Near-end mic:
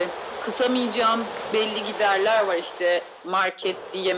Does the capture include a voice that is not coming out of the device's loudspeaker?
No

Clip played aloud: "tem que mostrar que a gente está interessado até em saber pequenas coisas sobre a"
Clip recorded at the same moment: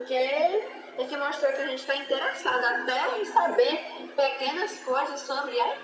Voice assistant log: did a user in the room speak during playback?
No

